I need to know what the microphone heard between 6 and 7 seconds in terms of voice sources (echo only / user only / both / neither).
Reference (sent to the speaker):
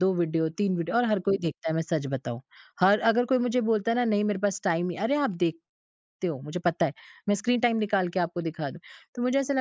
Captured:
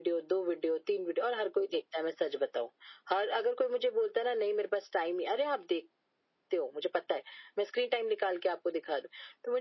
echo only